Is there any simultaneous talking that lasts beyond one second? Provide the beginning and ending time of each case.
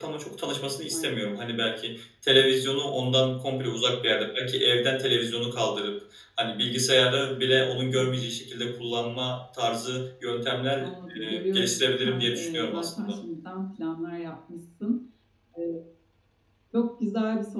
11.2-13.2

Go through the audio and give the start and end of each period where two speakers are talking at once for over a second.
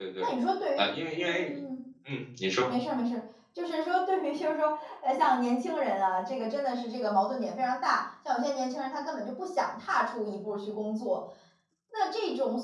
none

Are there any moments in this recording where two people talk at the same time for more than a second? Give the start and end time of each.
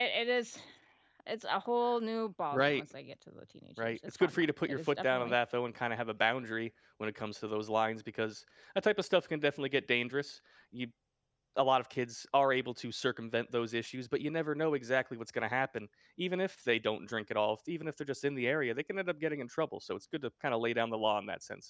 3.8-5.4

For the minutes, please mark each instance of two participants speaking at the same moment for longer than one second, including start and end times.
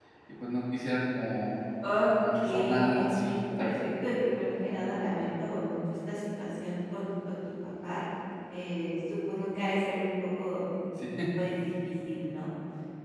2.3-3.7

